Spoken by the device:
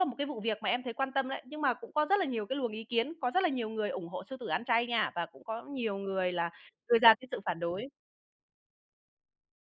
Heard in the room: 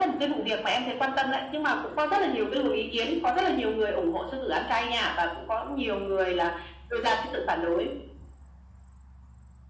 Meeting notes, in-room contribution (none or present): none